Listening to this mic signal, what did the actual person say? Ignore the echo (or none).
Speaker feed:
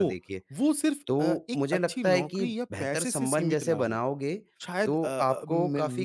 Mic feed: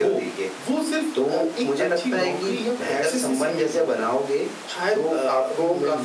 none